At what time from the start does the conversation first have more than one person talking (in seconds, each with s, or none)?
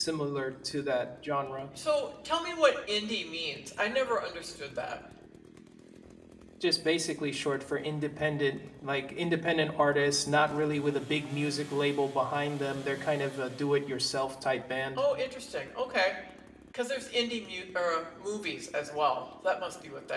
none